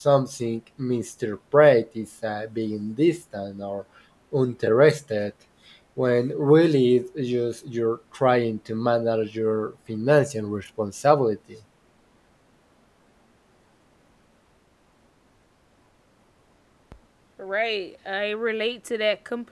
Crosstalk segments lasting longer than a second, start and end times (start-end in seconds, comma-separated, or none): none